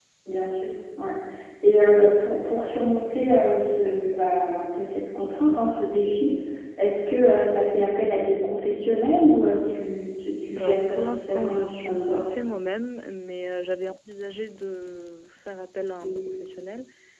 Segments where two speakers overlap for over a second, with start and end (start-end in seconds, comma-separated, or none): 10.6-12.3